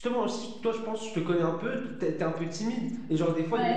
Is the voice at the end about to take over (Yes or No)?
No